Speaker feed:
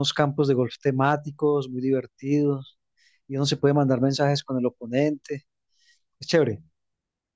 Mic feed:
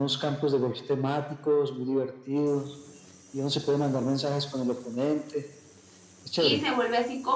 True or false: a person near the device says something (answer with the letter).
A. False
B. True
B